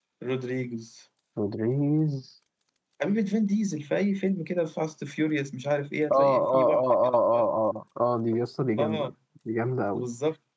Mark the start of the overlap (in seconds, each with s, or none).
6.1 s